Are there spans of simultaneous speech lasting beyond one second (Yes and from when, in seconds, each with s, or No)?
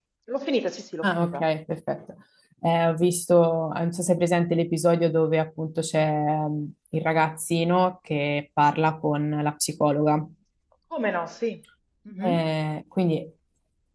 No